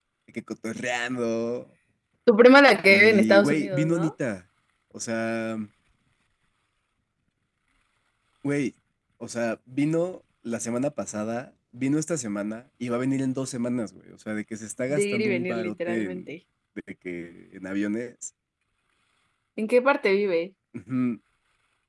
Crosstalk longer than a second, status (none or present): present